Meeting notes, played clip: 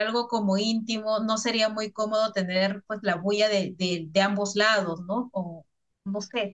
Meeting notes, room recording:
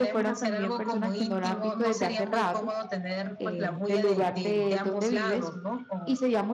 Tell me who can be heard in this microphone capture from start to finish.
both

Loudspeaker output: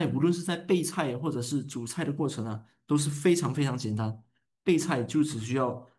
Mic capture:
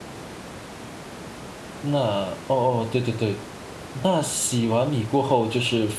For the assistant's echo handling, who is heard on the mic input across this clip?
user only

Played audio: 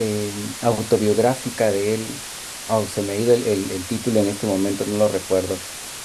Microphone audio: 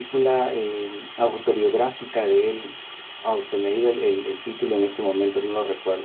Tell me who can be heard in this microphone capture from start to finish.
echo only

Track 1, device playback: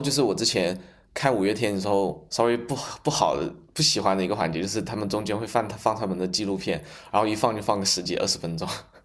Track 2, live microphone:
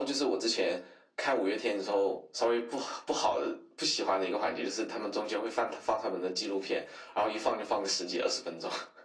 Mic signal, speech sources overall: echo only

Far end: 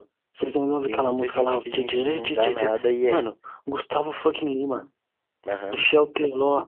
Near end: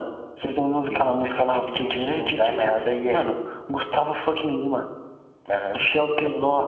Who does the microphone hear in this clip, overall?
echo only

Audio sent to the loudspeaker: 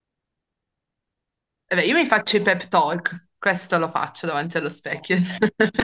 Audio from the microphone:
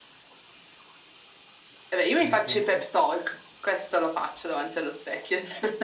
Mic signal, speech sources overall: both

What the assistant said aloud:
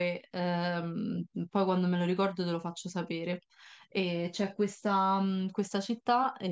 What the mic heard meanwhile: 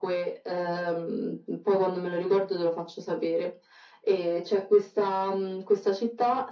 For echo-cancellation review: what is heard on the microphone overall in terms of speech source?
echo only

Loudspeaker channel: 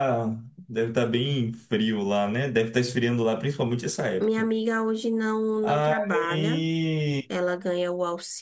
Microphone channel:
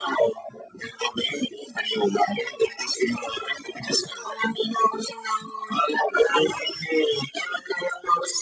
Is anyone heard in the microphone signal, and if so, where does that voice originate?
echo only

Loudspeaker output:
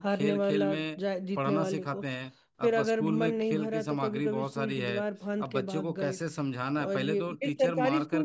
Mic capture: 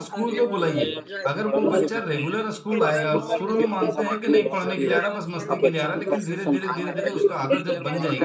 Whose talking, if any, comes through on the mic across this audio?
both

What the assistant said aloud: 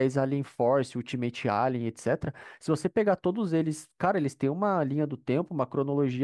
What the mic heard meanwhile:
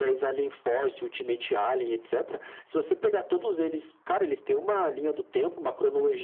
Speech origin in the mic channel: echo only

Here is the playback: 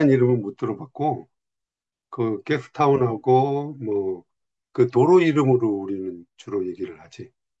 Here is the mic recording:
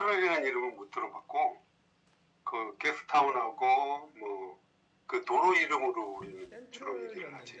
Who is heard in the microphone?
both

